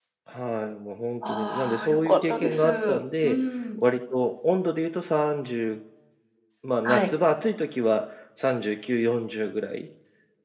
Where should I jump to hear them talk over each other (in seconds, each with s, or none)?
1.2 s